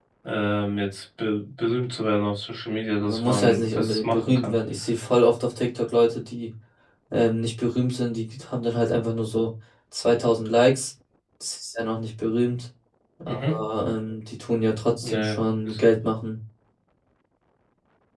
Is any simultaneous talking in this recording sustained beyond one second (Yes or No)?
Yes